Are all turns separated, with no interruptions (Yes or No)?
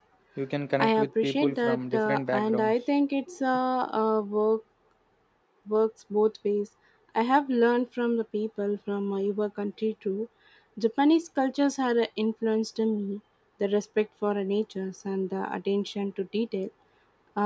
No